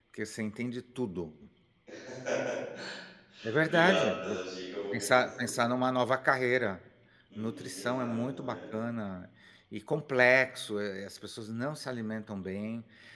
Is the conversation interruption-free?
No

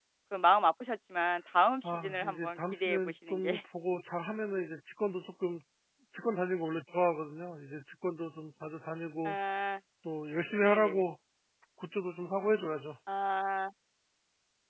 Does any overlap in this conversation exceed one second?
Yes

